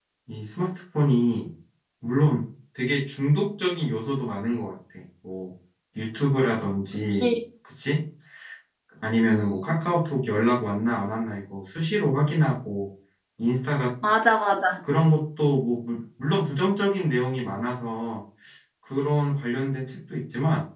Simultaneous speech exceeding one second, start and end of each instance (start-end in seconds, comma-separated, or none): none